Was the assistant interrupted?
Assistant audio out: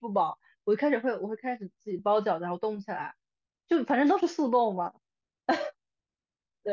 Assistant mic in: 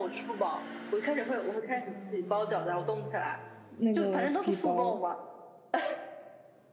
Yes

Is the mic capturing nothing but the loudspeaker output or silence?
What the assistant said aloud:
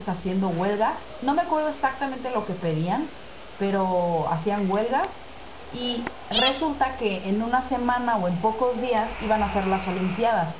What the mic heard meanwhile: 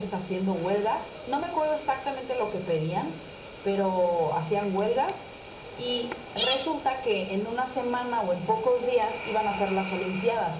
Yes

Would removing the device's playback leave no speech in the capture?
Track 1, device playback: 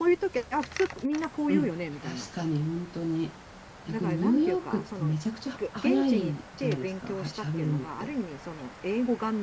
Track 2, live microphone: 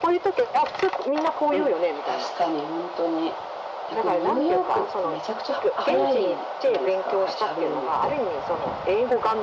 Yes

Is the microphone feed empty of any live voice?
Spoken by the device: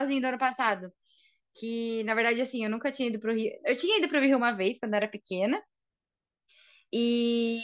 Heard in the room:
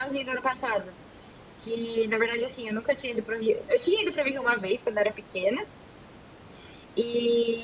Yes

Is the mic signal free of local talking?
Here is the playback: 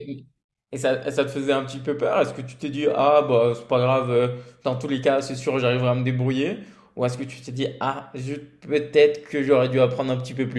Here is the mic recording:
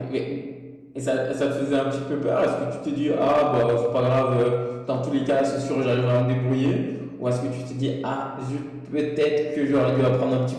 Yes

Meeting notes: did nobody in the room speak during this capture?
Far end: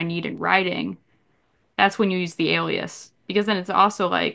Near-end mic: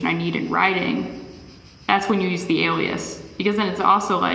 Yes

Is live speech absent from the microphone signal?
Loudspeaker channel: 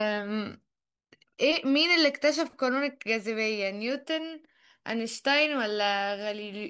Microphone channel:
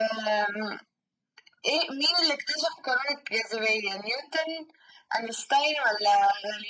Yes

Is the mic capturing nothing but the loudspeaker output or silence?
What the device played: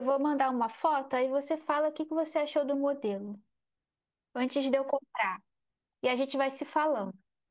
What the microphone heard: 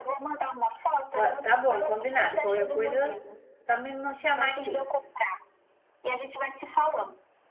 No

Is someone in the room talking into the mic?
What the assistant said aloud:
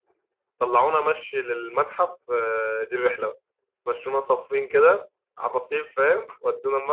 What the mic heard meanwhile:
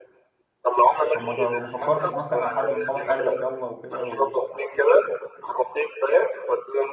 Yes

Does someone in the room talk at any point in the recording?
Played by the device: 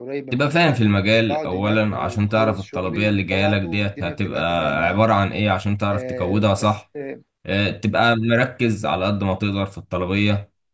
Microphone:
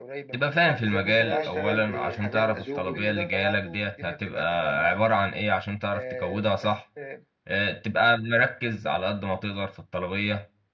Yes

